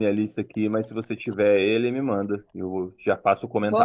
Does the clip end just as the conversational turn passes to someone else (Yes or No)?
Yes